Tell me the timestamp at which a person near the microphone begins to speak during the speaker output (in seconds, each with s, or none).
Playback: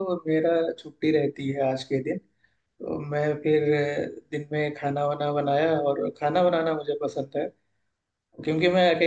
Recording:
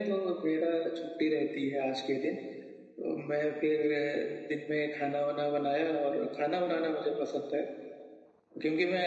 none